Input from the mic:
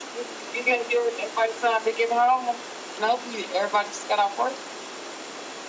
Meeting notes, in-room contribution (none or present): none